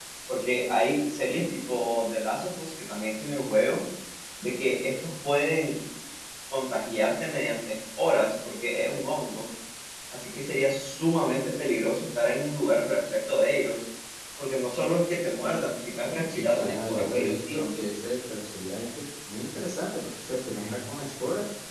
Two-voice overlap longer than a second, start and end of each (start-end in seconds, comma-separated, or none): 16.3-17.6